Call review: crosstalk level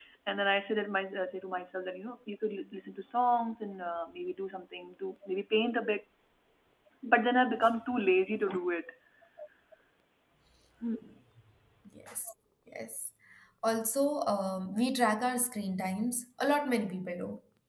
none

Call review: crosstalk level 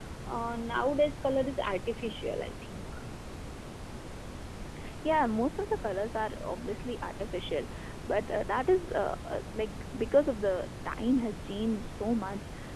none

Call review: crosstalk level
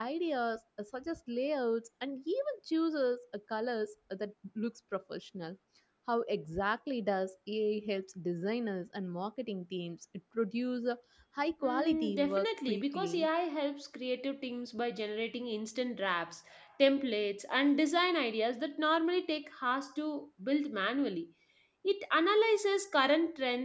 present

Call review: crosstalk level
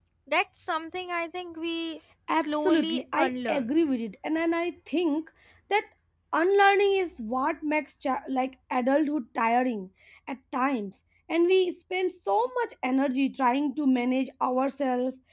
present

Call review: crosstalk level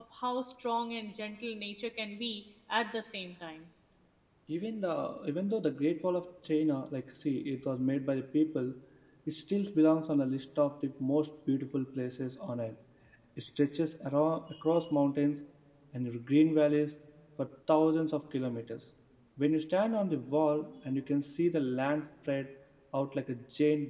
none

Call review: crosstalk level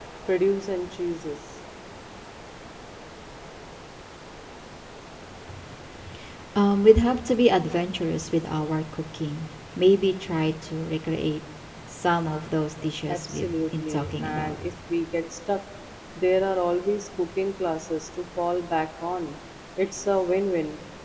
present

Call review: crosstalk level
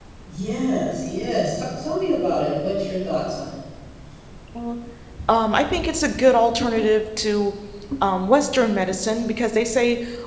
none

